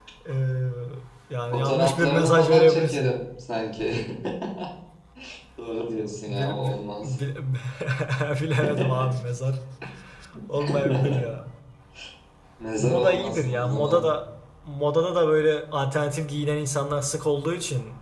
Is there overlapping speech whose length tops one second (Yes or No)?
Yes